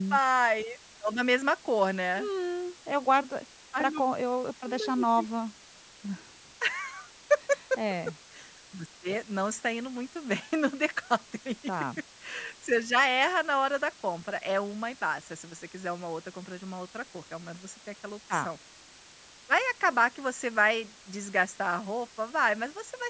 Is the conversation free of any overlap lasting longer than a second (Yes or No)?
Yes